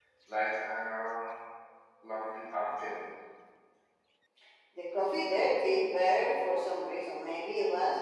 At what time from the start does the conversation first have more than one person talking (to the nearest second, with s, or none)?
none